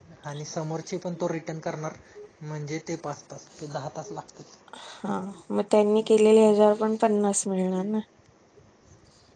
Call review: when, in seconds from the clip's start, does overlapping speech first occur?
none

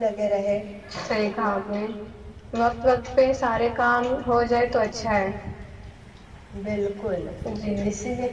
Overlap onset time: none

